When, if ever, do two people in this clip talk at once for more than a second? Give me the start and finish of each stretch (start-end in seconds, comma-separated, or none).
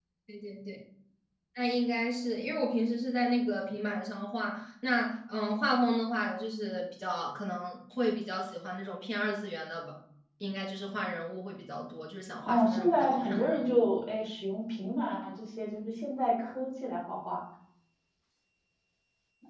12.4-13.8